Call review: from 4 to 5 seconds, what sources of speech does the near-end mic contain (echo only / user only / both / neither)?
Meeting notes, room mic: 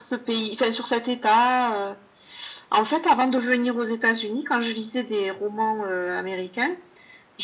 echo only